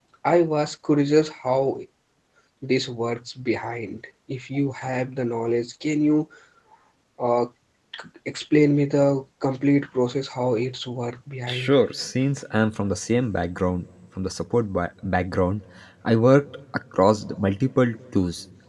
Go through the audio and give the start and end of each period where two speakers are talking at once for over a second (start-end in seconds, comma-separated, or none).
none